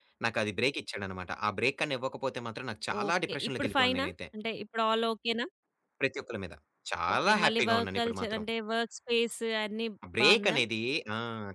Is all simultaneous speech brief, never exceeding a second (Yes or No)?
No